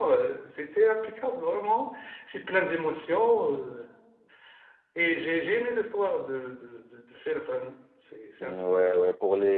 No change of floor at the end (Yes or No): No